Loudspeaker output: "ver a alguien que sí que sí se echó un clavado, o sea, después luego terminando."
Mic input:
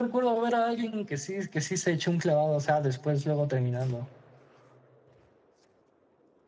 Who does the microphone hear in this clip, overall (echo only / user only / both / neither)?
echo only